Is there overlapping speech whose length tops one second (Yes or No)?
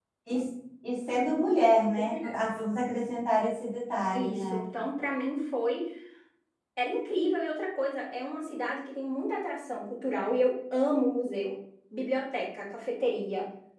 No